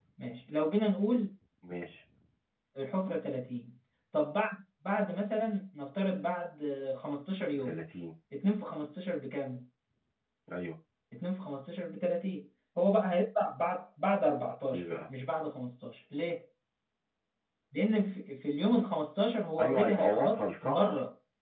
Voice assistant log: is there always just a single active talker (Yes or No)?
No